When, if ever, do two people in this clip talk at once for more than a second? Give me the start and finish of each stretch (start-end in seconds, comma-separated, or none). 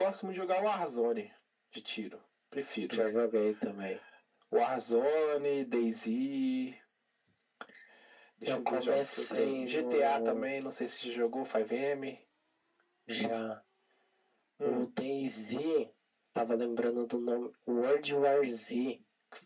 8.5-10.5